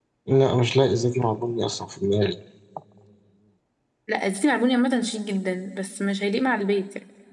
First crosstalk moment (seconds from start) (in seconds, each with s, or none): none